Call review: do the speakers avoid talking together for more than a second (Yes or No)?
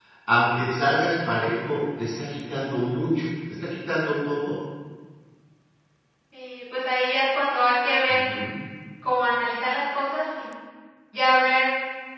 Yes